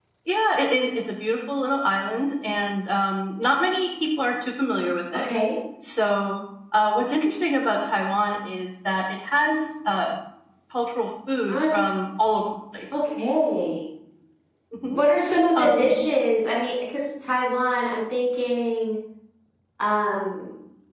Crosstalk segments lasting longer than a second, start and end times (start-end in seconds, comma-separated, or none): none